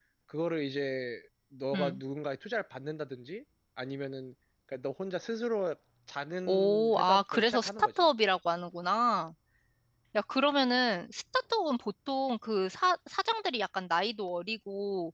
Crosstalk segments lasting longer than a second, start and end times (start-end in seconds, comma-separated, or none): 6.5-7.9